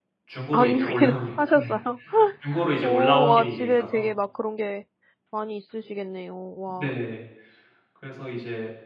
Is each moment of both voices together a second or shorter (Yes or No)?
No